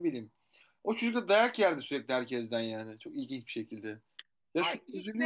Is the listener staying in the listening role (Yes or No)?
No